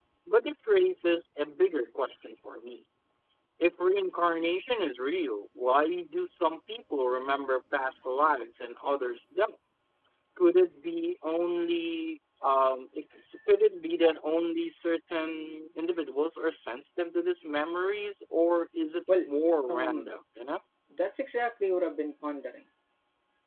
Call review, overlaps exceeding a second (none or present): none